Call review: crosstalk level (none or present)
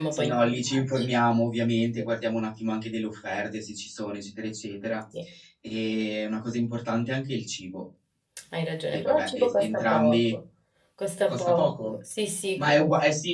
present